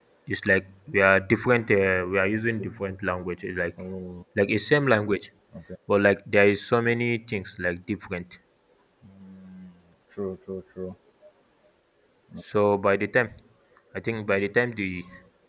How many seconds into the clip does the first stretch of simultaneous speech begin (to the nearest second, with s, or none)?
none